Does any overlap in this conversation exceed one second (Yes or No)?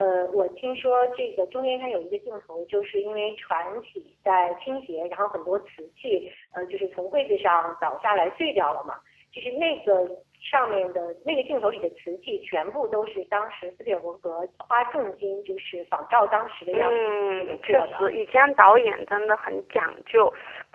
Yes